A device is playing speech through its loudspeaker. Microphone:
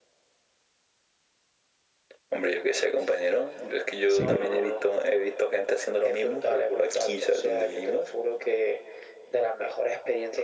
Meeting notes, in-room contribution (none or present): present